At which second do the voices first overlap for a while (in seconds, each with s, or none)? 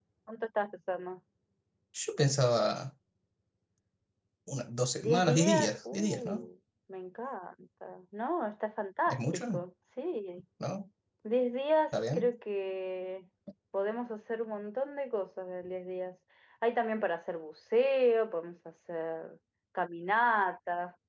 5.0 s